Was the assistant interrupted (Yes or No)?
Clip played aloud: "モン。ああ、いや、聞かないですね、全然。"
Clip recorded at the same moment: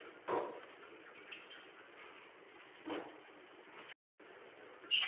No